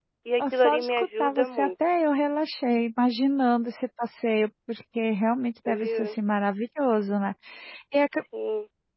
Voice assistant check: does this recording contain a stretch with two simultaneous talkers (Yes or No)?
Yes